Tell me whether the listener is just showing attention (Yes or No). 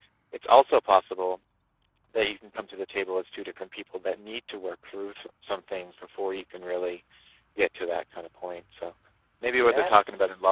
Yes